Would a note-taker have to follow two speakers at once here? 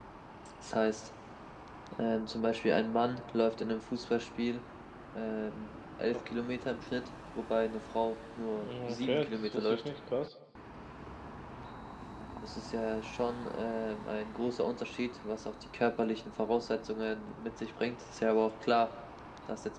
Yes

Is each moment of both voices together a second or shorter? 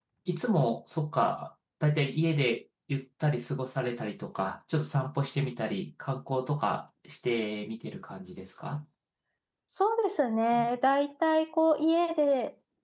Yes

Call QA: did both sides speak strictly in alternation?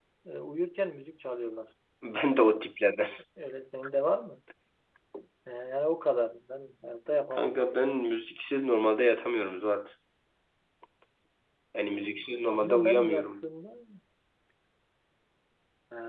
No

